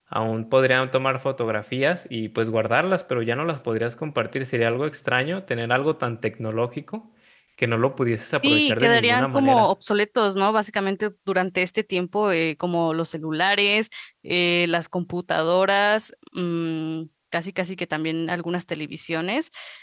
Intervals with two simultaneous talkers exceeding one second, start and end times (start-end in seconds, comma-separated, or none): 8.4-9.7